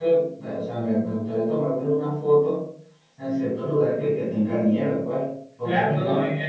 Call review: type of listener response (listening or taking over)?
taking over